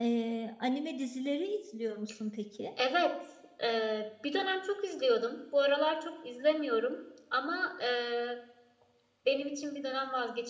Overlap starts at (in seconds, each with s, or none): none